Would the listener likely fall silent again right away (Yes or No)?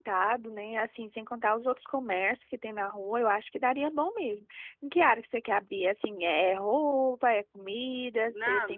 No